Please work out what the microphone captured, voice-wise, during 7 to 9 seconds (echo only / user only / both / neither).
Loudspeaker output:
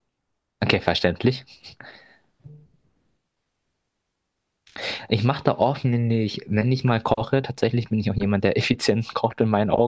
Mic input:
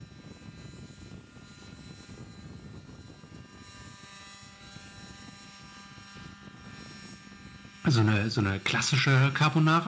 user only